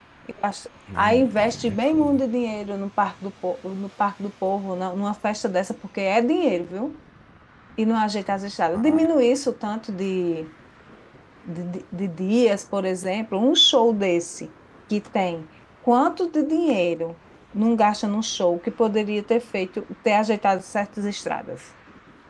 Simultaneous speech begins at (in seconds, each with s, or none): 1.0 s